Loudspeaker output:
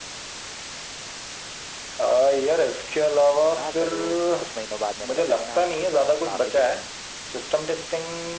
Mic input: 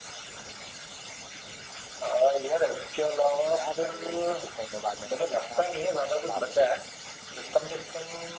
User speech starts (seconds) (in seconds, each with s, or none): none